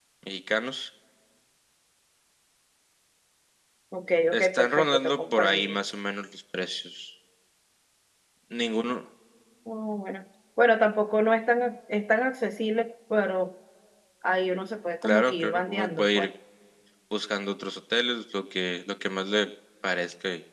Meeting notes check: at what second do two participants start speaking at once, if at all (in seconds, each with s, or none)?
4.3 s